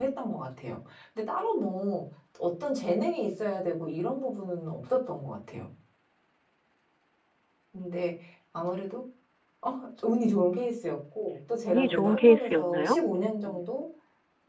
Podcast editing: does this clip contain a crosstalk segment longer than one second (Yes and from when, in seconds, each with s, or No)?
Yes, from 11.7 s